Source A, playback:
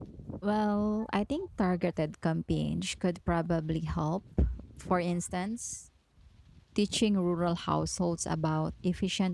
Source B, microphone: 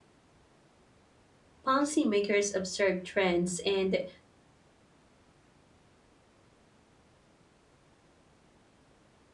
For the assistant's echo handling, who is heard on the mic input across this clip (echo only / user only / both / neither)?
user only